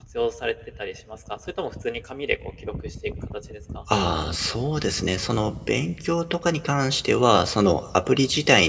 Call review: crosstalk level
none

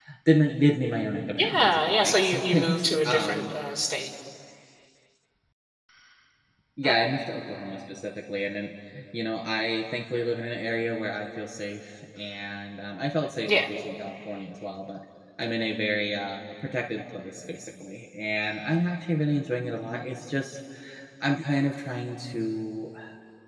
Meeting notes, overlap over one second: present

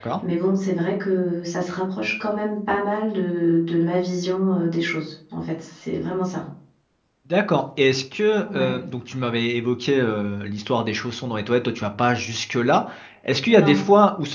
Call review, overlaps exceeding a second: none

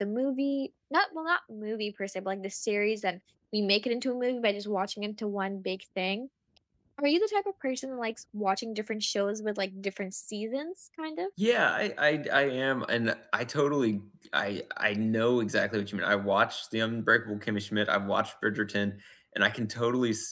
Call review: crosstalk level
none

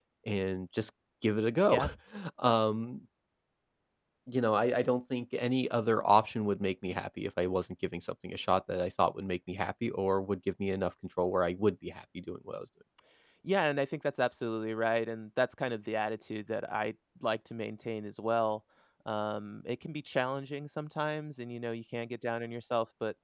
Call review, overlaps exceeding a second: none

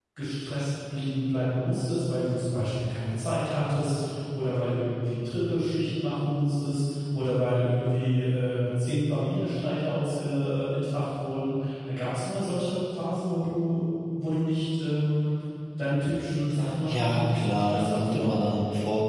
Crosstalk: present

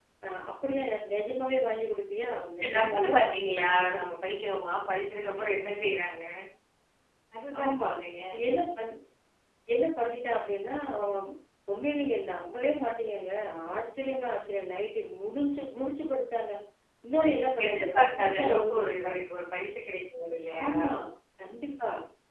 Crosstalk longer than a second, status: present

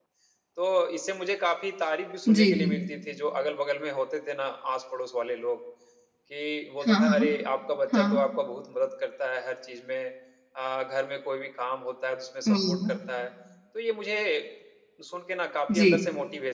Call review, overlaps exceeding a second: none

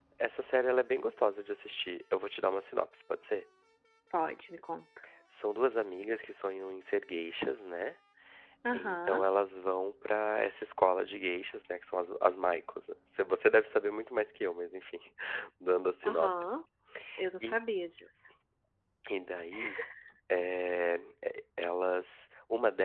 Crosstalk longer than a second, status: none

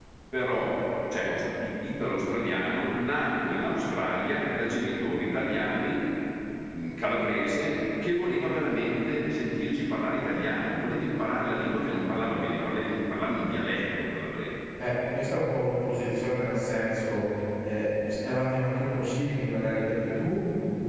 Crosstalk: none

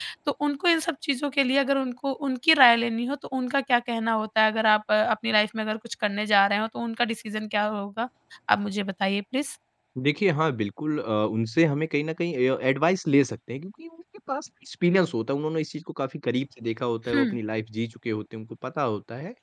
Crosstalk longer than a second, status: none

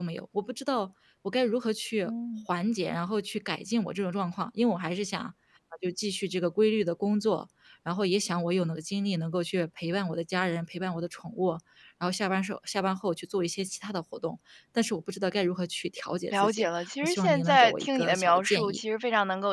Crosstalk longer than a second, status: present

